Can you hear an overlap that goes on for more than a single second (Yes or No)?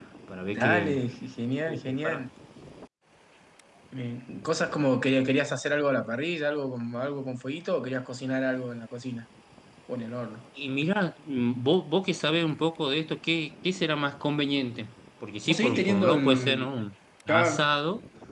Yes